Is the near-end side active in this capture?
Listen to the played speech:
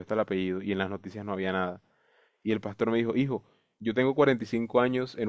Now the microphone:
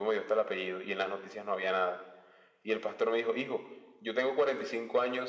No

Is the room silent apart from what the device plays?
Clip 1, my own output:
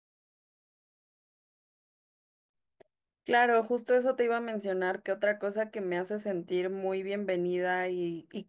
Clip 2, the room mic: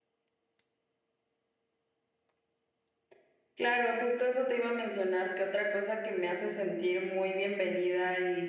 Yes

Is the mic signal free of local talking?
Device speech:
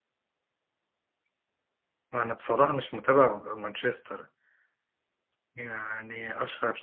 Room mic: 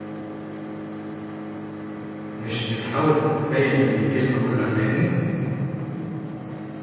No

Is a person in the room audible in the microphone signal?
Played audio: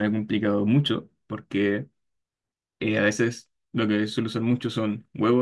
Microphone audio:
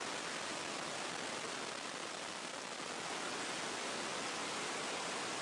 No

